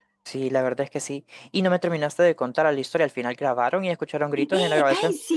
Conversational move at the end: taking over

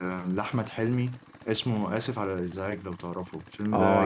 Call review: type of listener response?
taking over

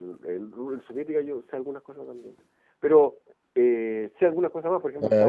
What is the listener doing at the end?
taking over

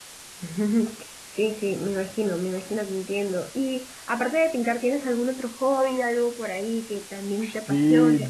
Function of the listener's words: taking over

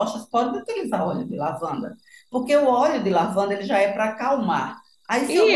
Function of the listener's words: taking over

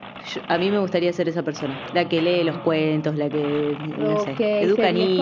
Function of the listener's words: taking over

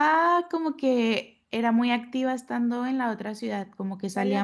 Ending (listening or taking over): listening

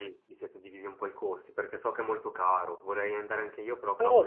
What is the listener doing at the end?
taking over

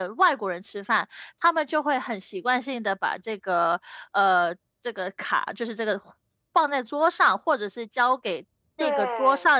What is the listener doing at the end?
listening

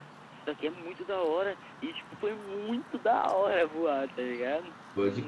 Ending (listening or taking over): taking over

